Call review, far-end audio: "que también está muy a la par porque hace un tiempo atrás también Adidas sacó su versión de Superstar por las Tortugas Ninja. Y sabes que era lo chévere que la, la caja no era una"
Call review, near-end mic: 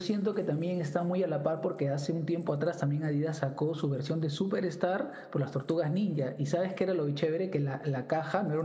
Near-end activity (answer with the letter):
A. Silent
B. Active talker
A